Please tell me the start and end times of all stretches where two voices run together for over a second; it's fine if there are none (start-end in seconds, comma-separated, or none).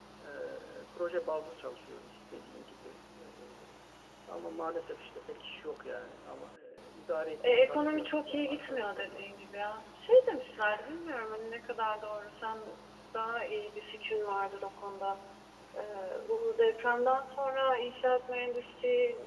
7.4-9.3